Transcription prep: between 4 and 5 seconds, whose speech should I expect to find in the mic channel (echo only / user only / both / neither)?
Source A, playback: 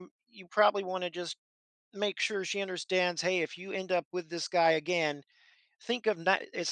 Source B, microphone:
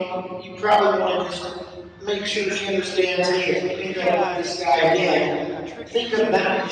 both